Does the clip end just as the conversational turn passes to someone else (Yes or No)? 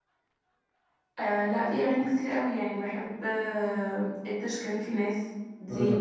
No